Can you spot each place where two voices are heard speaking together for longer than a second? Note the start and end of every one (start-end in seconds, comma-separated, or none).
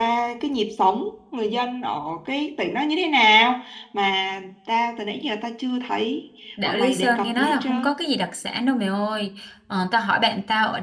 6.6-7.9